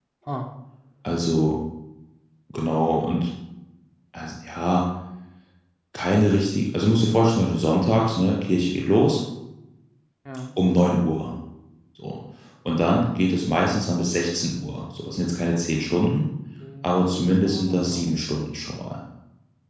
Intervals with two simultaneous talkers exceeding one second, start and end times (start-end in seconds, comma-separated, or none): 16.8-18.1